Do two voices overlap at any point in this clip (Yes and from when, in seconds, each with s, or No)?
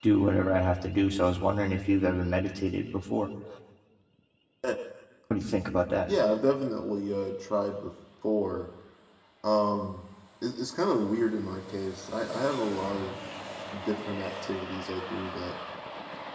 No